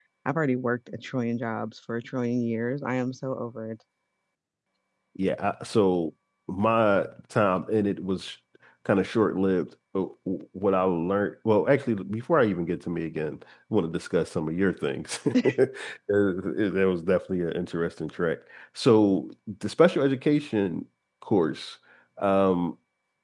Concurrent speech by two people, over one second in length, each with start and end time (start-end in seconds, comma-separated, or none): none